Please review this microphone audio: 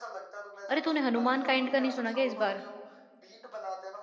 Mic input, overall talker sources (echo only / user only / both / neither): both